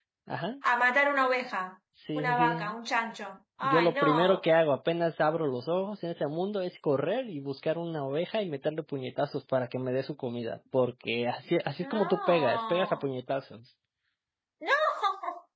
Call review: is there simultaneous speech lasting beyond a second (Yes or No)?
Yes